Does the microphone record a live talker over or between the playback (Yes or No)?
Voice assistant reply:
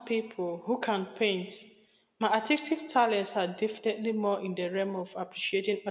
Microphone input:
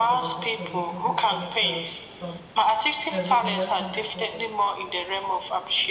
Yes